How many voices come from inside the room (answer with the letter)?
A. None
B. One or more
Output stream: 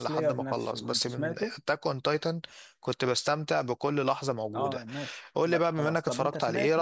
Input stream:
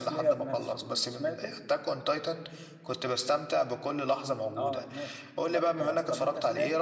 A